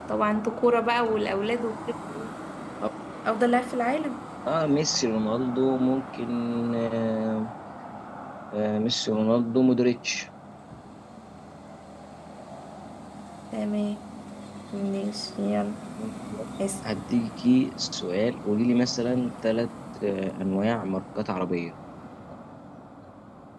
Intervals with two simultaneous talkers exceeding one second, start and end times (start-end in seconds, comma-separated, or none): none